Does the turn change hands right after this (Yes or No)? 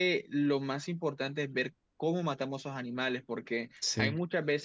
No